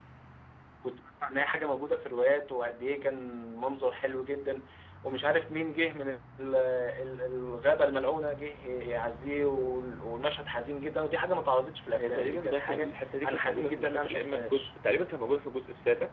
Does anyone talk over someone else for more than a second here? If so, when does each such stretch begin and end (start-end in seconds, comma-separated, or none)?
12.0-14.7